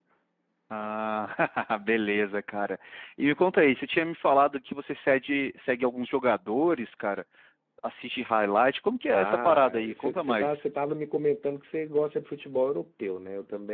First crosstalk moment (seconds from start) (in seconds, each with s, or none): 9.1 s